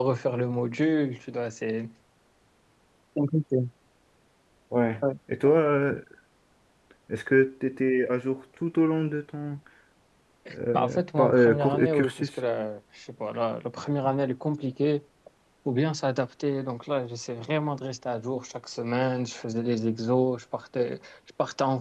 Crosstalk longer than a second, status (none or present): present